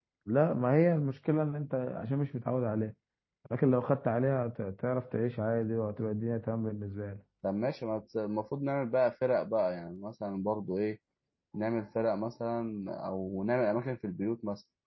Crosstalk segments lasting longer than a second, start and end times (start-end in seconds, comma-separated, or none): none